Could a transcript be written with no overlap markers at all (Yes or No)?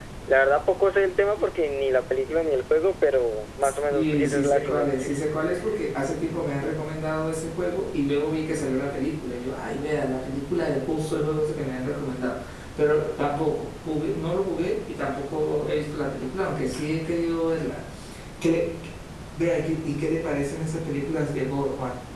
No